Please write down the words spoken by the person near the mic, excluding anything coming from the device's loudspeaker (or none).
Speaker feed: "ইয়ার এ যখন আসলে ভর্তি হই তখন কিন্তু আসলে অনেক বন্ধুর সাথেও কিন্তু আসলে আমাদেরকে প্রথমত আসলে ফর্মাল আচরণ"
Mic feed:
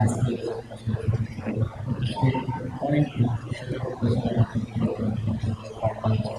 none